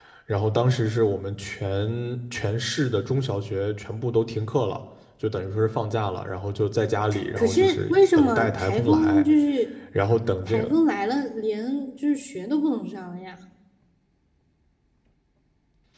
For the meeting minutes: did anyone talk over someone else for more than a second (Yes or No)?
Yes